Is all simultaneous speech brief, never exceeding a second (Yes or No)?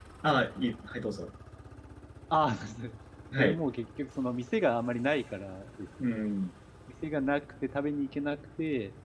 Yes